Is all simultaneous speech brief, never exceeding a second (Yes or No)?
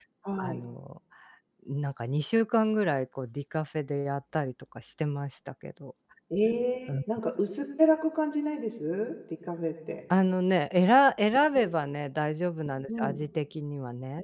Yes